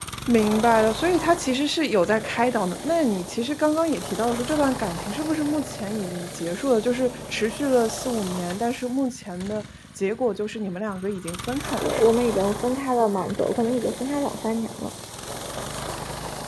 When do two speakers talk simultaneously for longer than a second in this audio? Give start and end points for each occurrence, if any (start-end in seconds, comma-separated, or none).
none